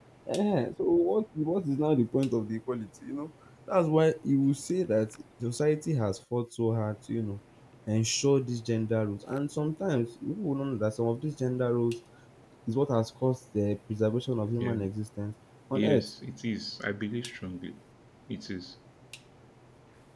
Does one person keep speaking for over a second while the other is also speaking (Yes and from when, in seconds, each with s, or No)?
No